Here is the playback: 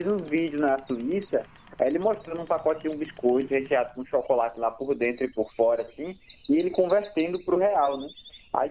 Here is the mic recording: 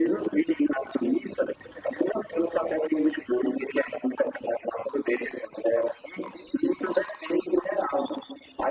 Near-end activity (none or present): none